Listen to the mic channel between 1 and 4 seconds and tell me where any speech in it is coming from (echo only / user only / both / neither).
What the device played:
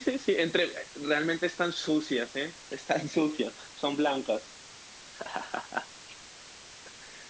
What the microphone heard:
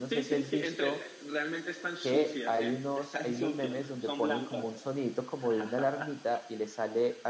both